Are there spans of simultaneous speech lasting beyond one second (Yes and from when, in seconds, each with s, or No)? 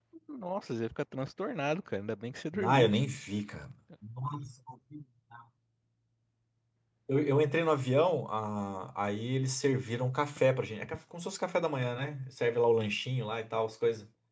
No